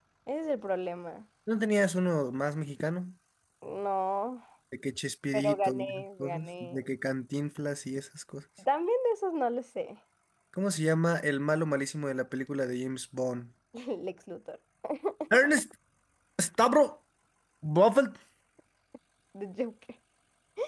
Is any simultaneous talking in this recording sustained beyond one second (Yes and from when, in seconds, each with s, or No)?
Yes, from 5.3 s